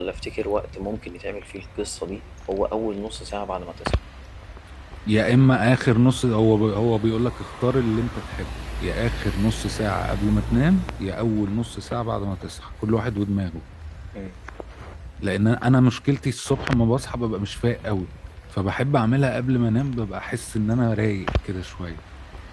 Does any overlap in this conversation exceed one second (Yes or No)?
No